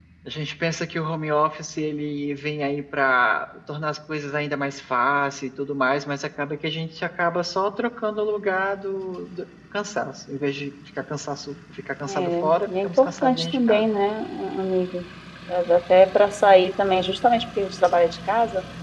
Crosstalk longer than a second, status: present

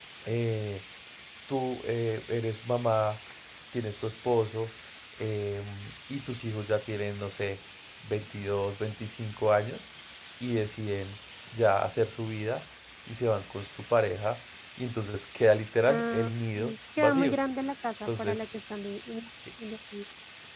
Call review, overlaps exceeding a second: present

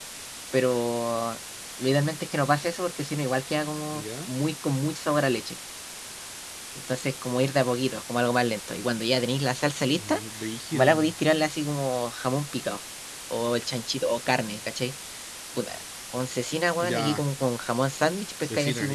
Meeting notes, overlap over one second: none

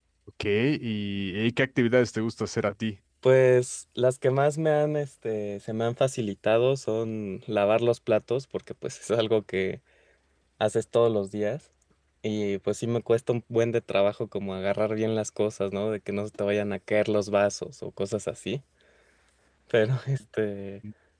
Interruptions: none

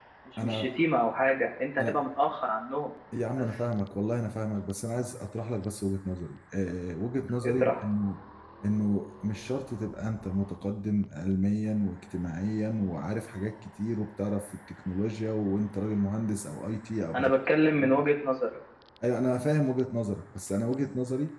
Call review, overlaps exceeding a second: none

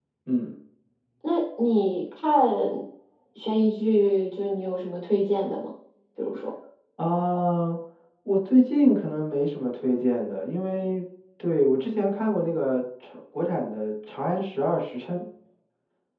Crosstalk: none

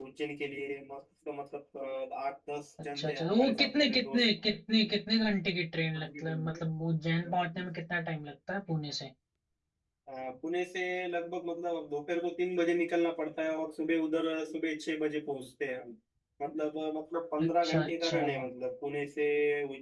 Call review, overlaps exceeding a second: present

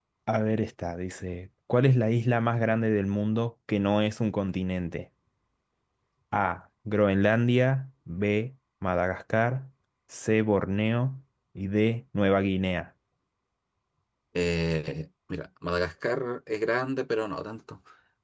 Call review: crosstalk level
none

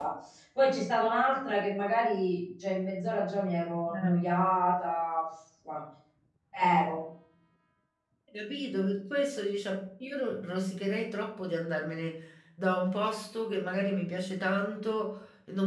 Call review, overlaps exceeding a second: none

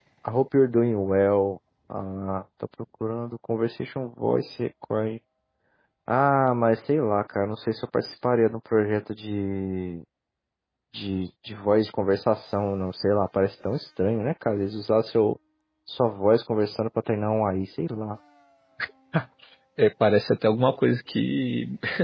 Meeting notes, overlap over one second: none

